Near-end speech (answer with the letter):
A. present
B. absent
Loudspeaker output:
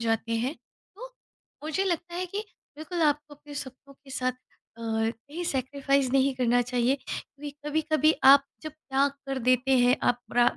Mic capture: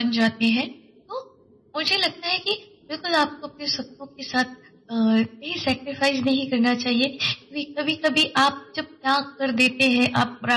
B